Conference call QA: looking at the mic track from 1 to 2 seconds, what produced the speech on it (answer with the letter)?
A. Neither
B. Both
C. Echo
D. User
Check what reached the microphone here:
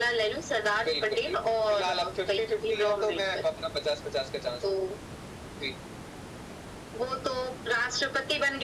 C